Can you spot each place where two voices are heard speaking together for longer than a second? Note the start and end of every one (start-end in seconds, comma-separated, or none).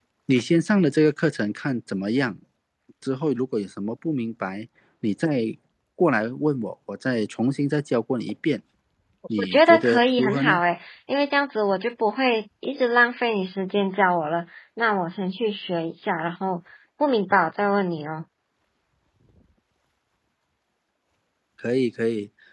9.4-10.6